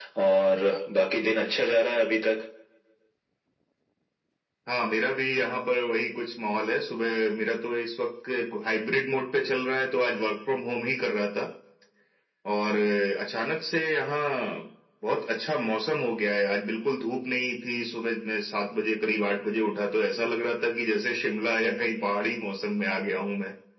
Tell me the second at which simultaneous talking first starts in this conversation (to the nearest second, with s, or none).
none